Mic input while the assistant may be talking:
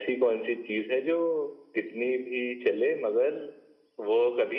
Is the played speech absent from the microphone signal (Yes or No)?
No